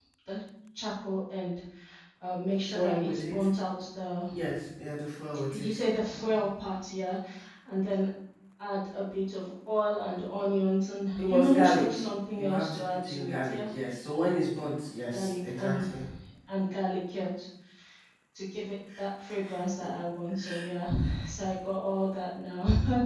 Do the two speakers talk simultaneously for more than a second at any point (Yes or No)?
Yes